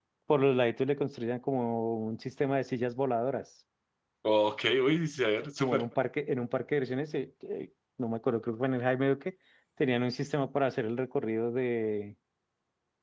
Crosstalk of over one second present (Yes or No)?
No